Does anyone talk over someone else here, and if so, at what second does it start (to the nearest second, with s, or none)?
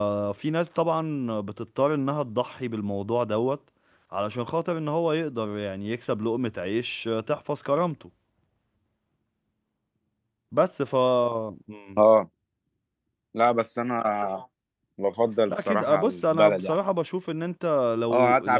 15 s